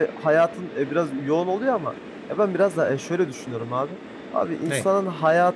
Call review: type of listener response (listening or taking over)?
listening